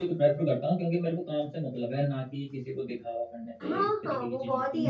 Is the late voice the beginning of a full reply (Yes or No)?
Yes